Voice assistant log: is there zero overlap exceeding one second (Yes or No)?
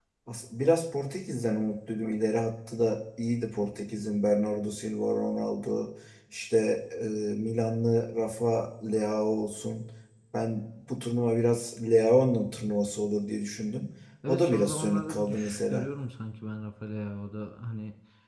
No